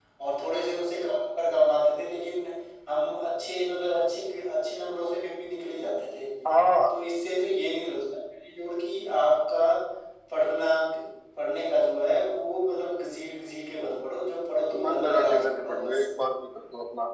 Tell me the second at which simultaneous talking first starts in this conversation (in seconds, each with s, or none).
14.7 s